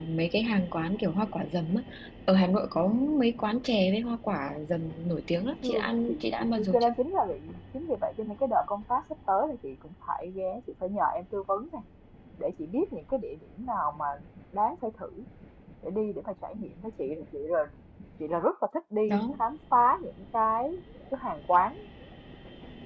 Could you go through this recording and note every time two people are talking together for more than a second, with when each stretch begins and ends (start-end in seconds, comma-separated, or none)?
5.6-6.9